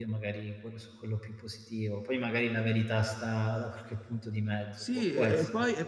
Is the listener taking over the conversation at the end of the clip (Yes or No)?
Yes